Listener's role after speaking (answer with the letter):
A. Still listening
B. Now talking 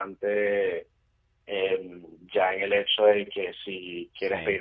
A